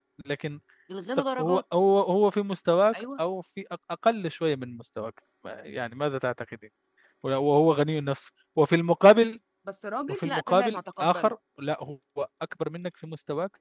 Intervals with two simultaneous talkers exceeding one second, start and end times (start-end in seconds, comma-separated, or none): 10.1-11.3